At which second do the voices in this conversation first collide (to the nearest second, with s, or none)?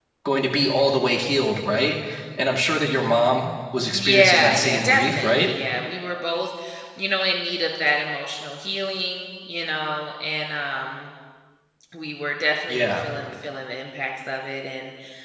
4 s